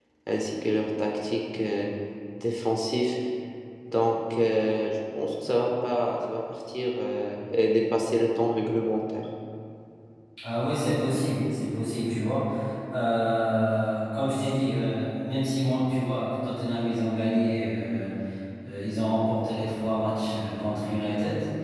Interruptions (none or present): none